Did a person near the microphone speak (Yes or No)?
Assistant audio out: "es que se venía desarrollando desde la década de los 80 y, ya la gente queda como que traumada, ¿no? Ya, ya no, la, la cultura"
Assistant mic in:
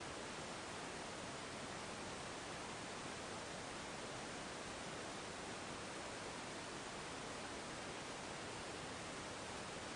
No